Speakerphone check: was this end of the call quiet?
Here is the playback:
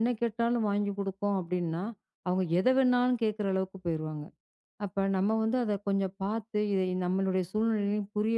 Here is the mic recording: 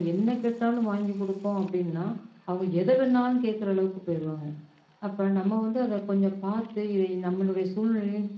Yes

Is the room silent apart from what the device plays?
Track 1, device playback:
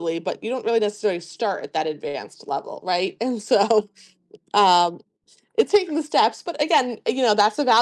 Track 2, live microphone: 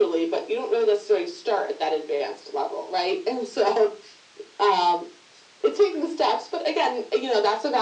Yes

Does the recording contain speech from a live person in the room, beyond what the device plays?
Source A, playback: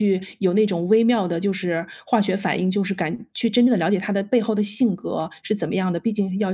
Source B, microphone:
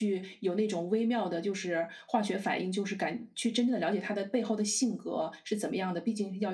No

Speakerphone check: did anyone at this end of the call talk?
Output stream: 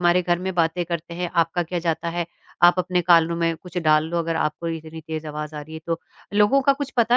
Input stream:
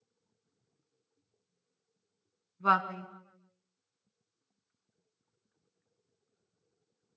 Yes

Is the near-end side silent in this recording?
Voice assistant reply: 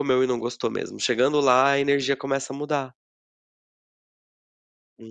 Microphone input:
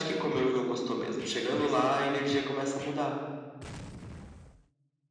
Yes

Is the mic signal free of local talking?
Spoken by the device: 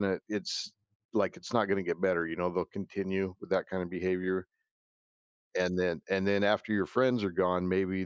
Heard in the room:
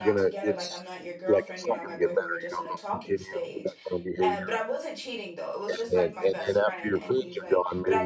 No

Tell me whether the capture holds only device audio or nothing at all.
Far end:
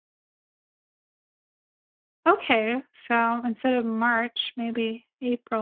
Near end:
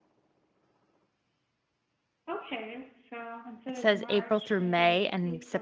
No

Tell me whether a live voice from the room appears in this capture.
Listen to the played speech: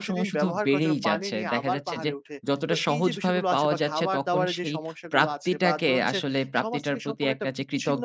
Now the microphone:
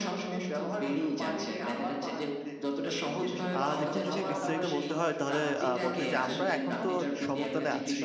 Yes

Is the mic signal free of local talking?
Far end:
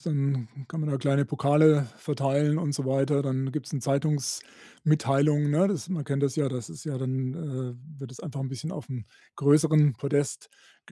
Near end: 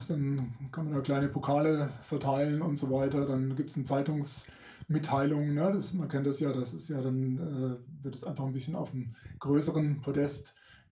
Yes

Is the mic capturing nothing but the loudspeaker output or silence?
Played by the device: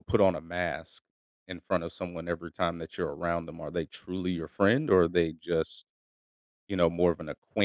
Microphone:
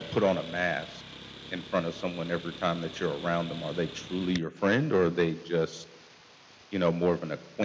Yes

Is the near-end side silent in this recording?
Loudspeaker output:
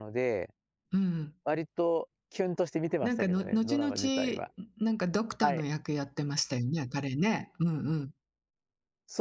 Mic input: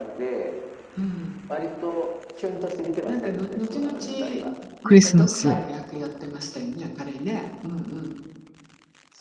No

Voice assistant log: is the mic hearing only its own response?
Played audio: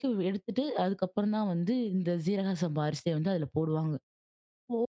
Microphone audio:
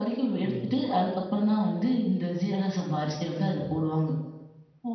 No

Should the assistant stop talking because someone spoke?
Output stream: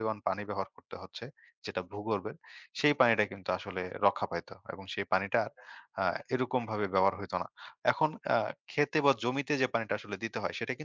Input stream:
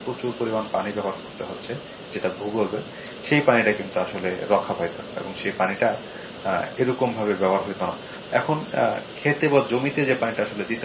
No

